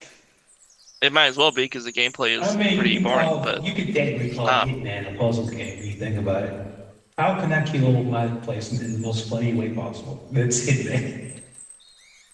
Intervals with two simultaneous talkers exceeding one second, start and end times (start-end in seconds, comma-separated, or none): 2.4-3.6